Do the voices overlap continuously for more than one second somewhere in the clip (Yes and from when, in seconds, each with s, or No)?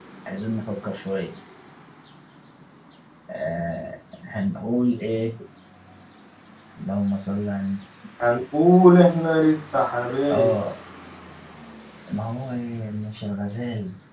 No